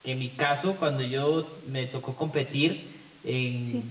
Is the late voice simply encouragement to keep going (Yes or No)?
Yes